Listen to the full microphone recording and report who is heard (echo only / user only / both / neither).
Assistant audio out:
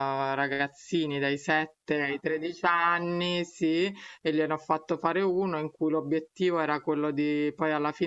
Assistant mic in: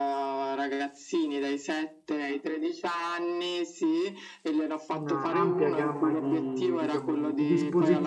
both